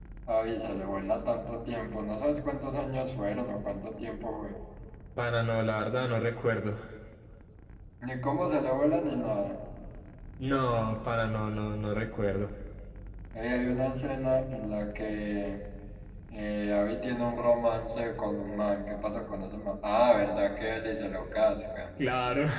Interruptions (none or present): none